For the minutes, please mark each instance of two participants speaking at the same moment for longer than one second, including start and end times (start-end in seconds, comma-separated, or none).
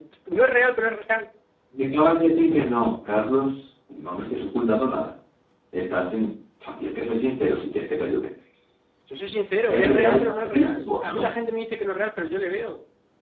9.7-11.3